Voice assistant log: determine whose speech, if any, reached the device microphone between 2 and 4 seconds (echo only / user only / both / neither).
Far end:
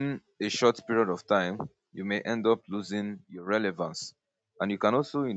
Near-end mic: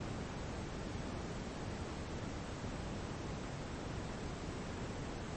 neither